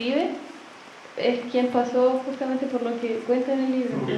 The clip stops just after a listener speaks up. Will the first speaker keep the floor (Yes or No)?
No